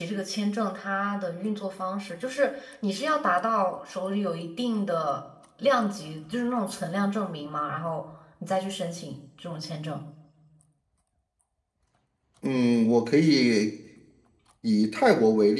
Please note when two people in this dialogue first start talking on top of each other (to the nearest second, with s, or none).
none